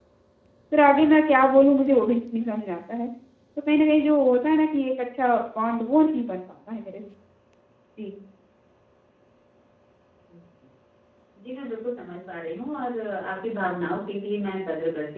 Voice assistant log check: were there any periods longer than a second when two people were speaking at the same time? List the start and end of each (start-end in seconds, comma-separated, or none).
none